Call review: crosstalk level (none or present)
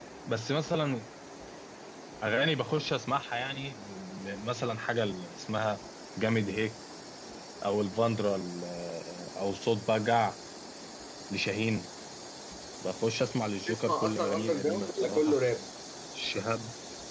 present